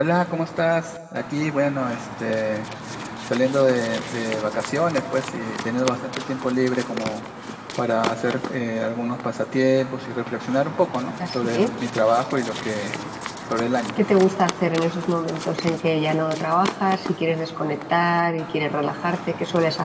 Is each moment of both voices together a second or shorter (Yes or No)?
Yes